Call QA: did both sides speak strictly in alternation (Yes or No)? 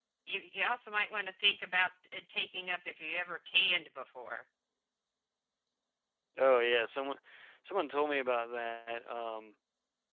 Yes